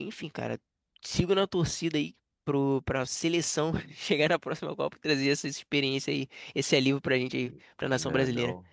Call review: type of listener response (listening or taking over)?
taking over